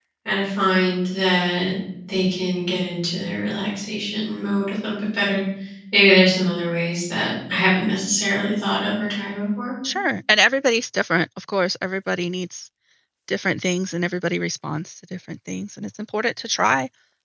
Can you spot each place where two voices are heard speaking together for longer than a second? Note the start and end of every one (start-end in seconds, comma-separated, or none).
none